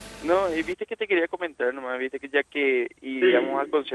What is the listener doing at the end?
listening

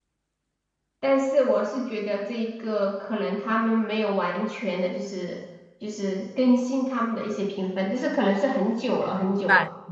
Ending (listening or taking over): taking over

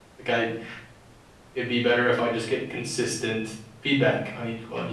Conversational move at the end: taking over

